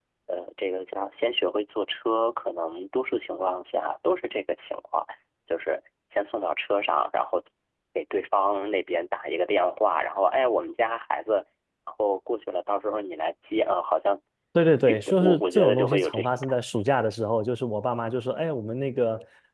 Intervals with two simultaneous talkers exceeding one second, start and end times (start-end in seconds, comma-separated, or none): 14.9-16.8